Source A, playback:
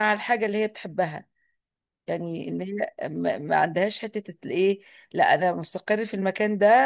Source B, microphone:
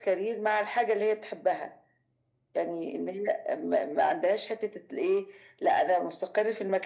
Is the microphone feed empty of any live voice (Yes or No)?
Yes